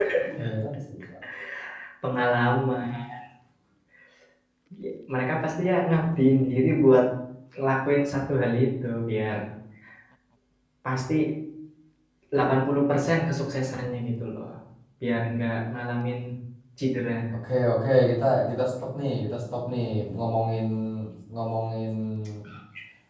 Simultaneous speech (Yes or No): No